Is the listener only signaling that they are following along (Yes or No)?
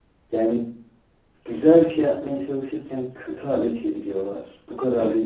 Yes